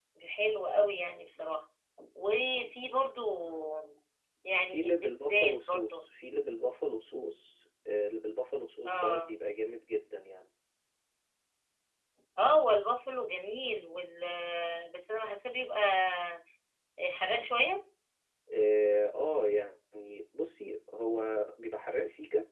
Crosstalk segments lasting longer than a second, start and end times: 4.7-6.0

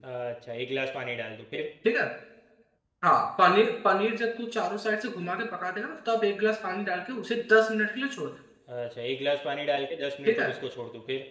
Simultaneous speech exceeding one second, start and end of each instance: none

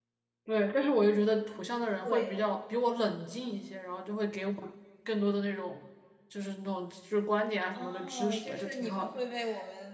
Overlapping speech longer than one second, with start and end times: 7.8-9.2

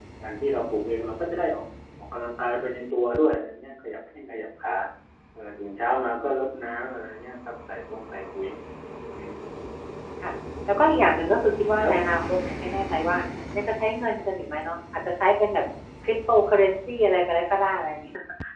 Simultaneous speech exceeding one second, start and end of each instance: none

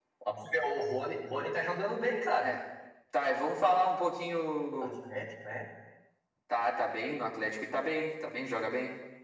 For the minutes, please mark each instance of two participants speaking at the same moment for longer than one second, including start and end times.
none

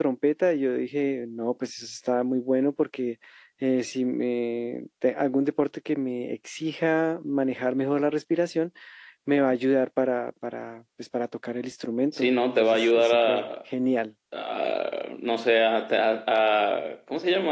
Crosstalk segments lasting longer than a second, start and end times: 12.1-13.5

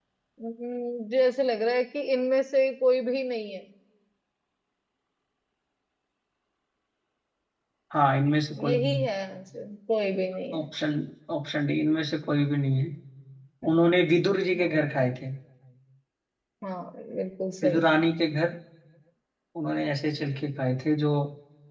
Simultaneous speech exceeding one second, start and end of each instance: none

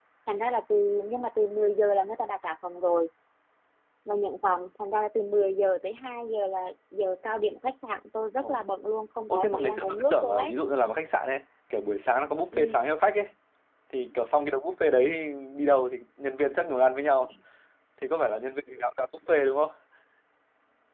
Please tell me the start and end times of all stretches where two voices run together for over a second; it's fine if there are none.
9.3-10.5

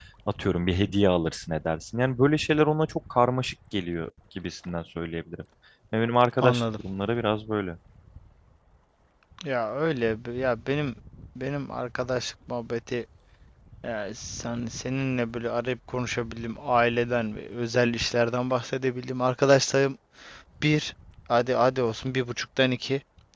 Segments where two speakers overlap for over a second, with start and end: none

